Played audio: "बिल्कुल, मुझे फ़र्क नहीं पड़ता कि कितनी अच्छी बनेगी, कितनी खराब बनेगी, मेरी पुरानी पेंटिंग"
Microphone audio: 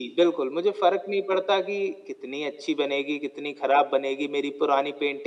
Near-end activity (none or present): none